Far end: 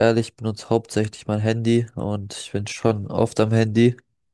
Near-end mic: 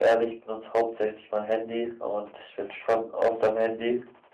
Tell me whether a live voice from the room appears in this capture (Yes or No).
No